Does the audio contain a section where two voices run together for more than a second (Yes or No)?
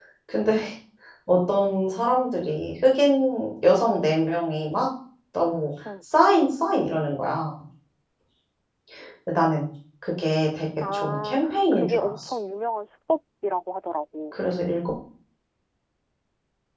Yes